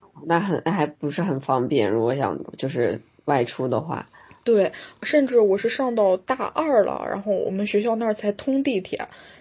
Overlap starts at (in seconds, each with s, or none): none